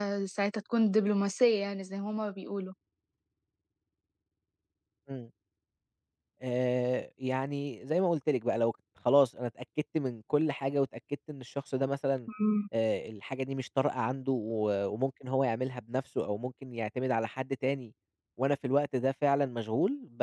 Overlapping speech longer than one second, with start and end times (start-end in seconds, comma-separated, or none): none